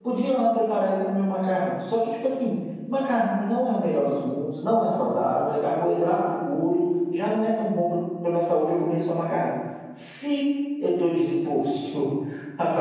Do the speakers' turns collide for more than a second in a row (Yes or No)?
No